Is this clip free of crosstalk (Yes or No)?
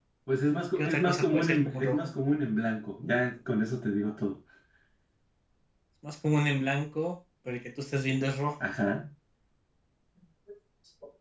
No